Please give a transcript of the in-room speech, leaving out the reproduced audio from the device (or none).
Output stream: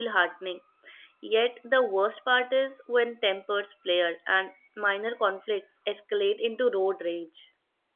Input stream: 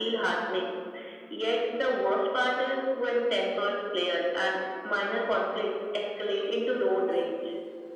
none